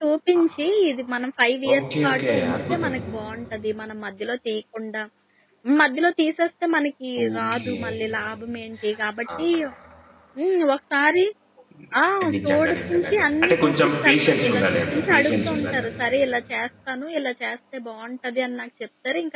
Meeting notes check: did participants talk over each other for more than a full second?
Yes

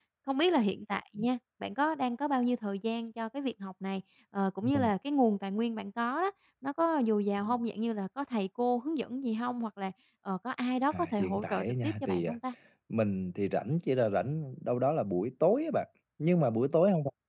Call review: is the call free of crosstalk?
No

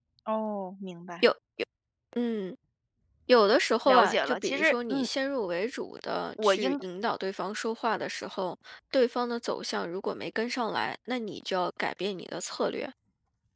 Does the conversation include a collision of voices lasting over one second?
Yes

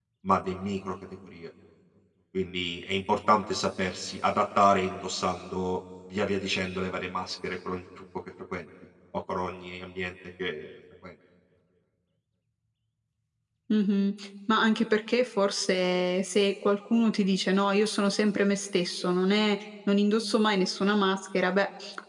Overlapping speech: No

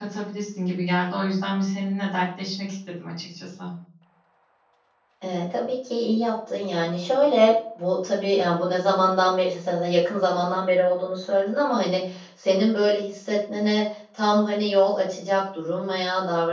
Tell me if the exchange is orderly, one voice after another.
Yes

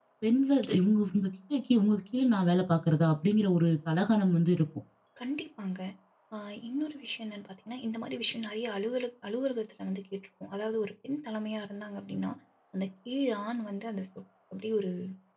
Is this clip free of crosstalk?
Yes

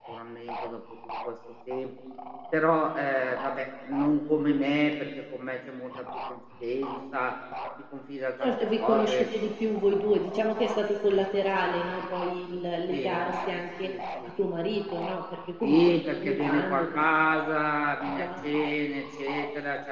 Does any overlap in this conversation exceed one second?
Yes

